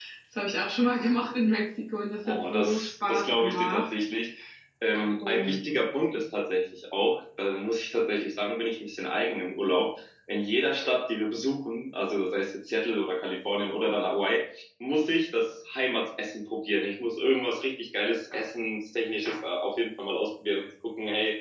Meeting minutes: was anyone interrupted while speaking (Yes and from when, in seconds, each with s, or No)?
Yes, from 2.3 s